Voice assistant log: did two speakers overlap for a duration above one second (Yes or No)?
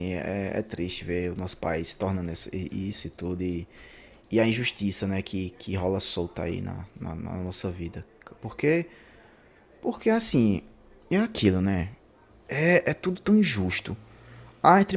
No